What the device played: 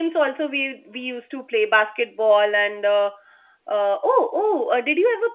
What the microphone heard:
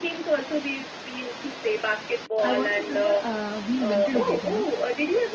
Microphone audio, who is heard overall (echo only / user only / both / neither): both